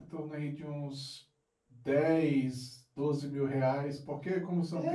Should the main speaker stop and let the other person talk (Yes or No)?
Yes